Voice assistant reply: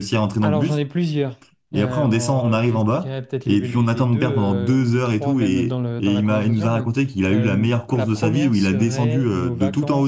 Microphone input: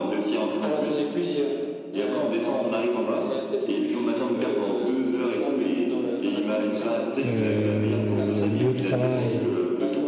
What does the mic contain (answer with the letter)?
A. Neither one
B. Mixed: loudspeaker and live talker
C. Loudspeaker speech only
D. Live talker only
B